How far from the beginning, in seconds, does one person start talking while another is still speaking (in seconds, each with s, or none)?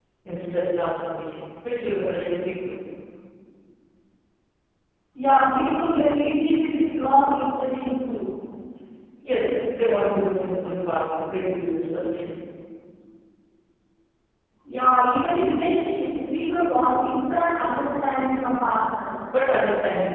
none